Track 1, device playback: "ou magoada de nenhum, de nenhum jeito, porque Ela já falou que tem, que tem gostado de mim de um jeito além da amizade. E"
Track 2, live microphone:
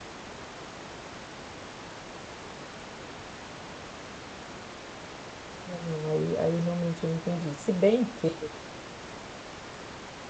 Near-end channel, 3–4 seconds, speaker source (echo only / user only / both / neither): neither